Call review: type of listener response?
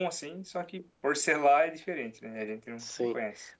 taking over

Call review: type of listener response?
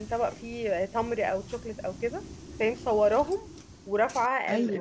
listening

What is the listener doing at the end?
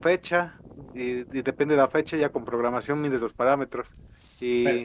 listening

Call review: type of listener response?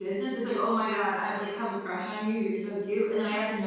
listening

